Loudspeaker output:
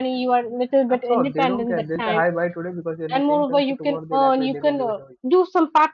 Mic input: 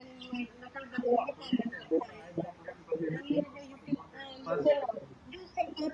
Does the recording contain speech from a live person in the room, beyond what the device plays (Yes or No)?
Yes